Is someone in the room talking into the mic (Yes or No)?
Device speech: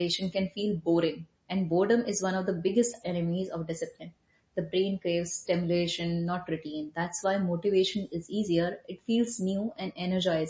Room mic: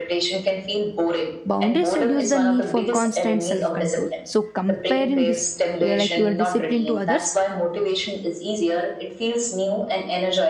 Yes